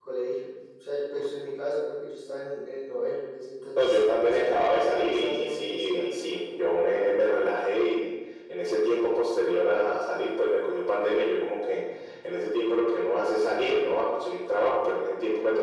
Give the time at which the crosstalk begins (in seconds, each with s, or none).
3.8 s